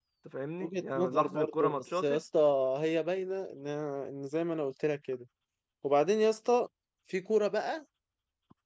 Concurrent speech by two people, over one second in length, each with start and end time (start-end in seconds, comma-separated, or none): 0.6-2.2